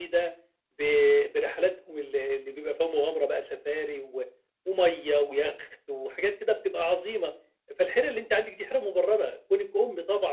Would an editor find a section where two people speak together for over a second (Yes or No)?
No